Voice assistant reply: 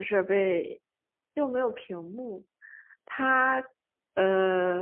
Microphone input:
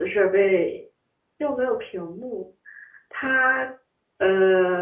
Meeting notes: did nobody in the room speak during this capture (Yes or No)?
Yes